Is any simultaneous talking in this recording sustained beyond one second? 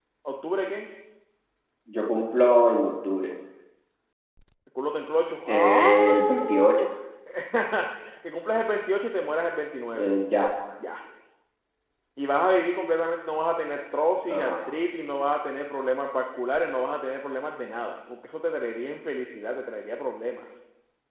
Yes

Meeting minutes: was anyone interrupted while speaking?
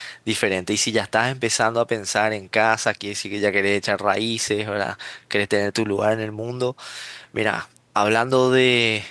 No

